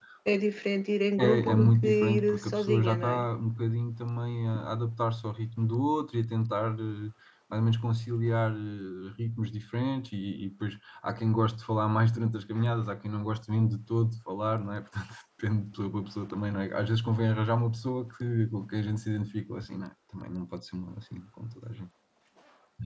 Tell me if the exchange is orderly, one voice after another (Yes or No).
No